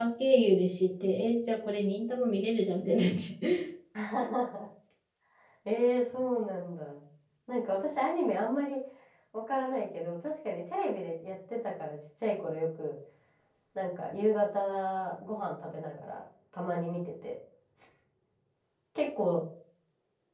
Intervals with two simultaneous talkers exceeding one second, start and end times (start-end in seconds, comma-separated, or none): none